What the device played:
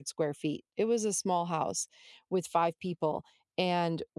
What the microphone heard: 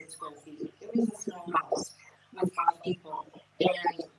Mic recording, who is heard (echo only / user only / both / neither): echo only